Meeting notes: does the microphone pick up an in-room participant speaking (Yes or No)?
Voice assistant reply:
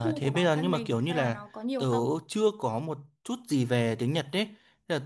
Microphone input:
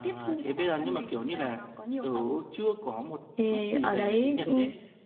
Yes